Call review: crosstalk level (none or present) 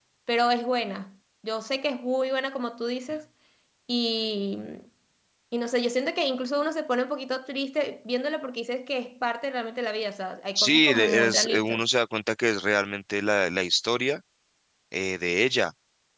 present